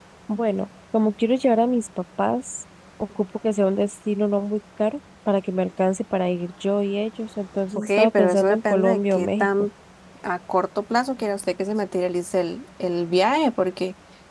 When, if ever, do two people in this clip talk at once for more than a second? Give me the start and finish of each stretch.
7.8-9.5

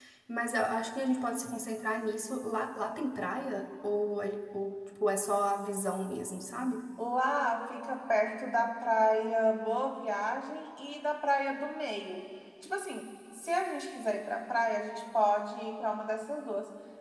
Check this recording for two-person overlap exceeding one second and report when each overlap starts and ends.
none

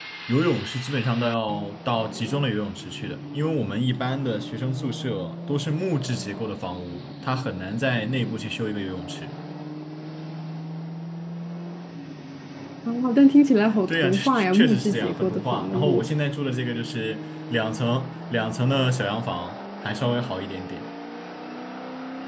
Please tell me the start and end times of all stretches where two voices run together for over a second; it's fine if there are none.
13.9-16.1

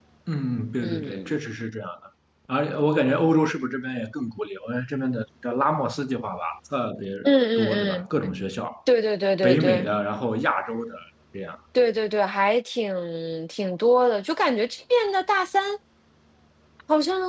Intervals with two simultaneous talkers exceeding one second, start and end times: none

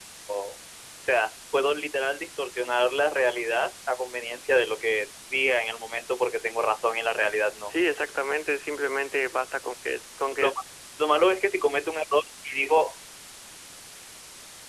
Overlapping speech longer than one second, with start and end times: none

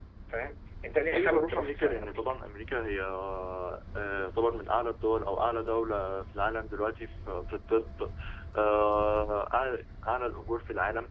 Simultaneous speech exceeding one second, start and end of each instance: 1.1-2.4

